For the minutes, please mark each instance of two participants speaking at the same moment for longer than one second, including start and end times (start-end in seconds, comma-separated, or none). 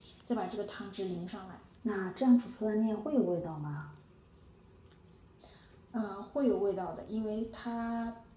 none